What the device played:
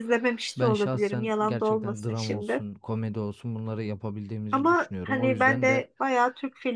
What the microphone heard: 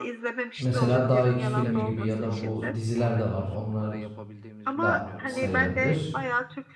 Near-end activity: present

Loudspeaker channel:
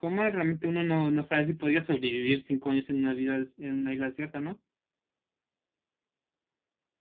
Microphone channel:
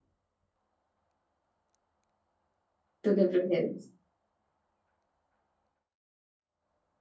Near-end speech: present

